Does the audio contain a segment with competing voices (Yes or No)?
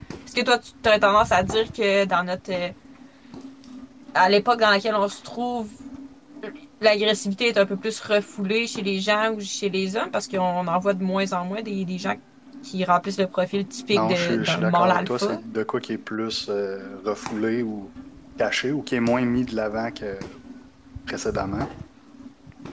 Yes